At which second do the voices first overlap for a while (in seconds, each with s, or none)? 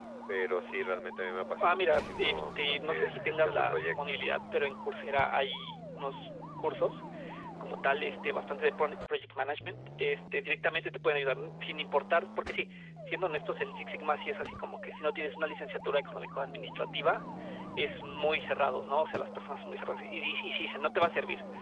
1.6 s